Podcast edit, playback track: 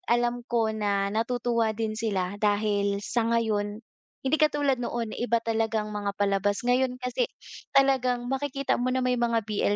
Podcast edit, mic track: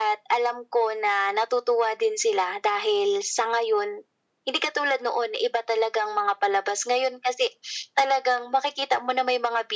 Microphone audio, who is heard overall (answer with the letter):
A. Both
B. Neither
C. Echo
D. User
C